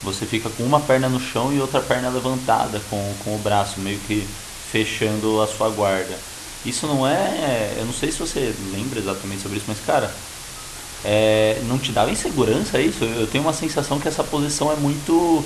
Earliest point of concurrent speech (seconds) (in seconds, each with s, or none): none